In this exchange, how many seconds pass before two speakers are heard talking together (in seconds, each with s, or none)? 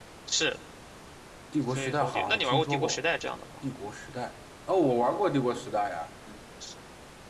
1.7 s